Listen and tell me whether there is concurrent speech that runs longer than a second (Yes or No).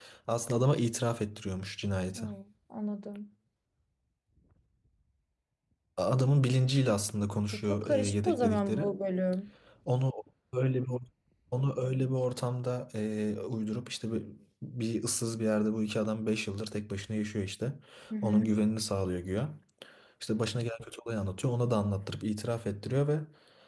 Yes